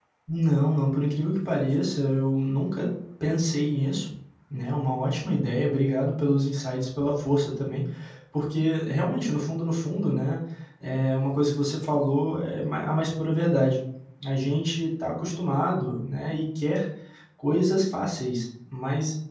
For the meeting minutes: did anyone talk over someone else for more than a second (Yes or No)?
No